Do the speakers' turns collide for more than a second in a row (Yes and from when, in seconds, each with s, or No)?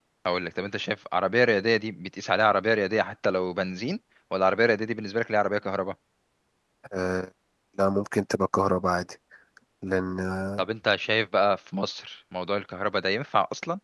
No